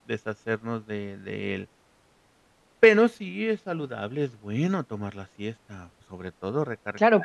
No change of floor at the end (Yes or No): No